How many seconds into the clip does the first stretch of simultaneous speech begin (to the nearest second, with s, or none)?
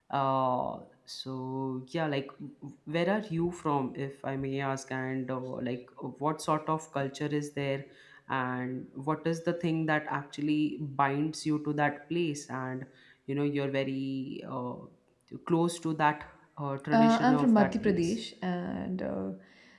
17 s